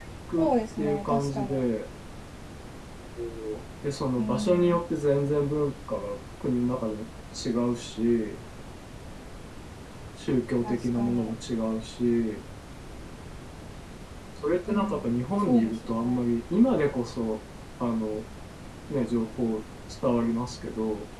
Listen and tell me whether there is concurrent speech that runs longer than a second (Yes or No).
Yes